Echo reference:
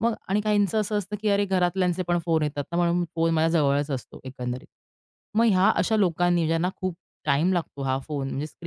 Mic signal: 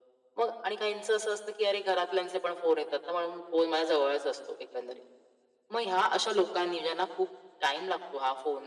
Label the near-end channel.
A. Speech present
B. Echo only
B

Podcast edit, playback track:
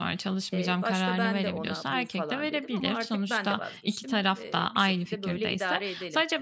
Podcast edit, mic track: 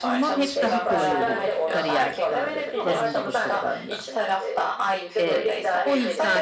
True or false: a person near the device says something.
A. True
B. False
A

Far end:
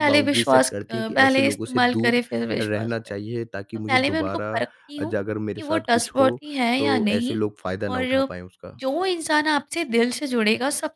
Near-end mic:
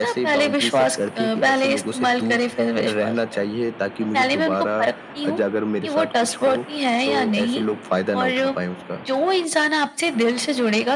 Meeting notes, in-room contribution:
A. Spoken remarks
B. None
B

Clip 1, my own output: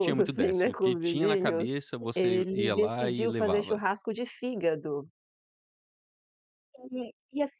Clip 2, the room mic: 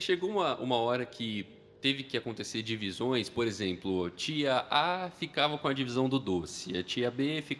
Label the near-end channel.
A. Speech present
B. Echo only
A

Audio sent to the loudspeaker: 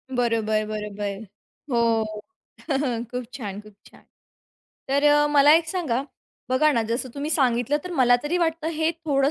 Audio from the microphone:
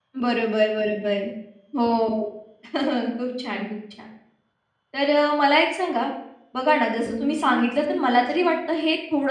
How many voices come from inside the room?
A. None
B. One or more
B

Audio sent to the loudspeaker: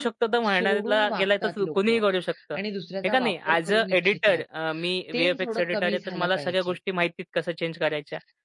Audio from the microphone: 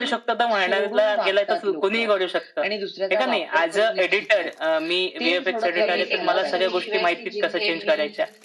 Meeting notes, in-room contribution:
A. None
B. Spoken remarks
B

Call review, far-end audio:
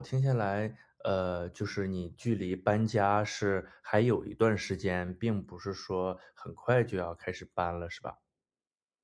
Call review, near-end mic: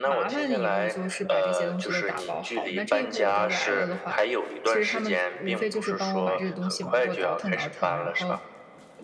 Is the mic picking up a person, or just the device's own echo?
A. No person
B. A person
B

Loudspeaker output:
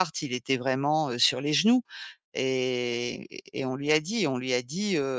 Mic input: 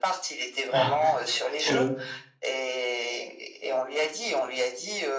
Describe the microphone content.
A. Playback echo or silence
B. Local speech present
B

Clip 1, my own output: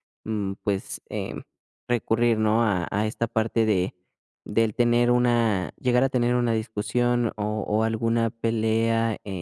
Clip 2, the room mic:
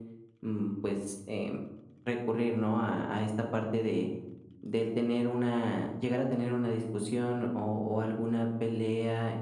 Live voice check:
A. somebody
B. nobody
B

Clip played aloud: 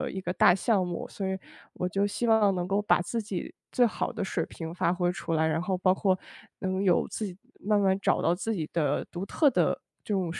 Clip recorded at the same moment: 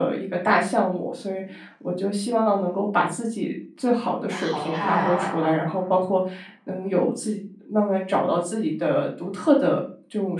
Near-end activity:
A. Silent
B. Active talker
B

